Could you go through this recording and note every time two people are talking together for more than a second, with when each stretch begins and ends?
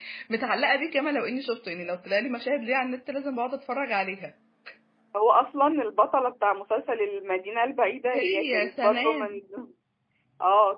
8.1-9.4

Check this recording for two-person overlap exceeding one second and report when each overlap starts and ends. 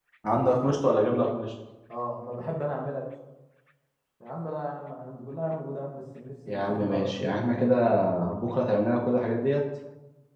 6.5-7.7

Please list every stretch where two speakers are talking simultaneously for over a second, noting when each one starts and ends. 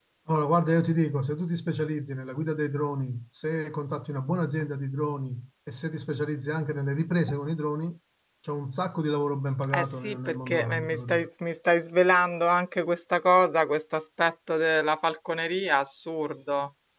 9.7-11.3

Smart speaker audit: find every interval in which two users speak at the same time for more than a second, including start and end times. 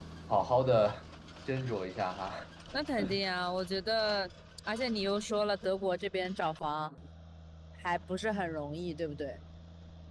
none

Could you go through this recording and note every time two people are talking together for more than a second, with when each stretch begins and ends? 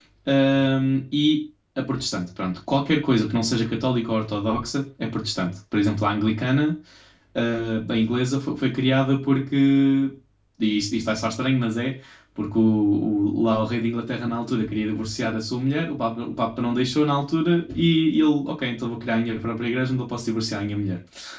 none

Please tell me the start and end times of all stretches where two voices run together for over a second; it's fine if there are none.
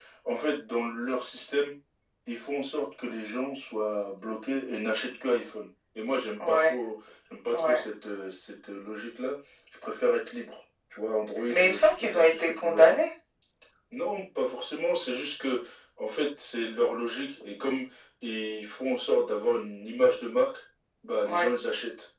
11.5-12.9

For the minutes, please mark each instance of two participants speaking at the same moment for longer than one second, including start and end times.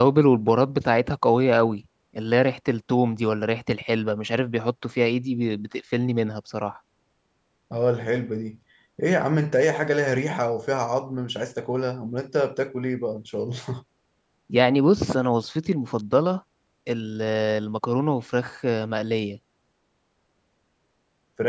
none

